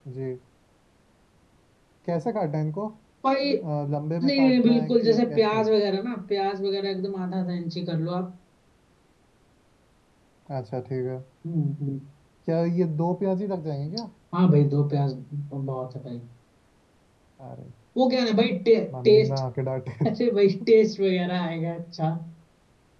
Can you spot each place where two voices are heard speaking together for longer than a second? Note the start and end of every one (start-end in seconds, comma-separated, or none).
4.2-5.6